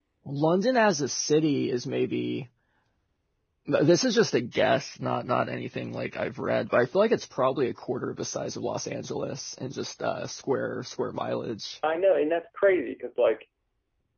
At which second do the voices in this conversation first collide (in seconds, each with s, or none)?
none